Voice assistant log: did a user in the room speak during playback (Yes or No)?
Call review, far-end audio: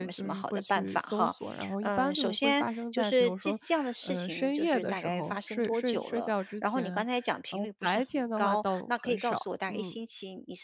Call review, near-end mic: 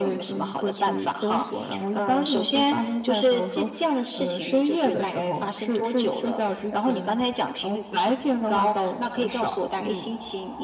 No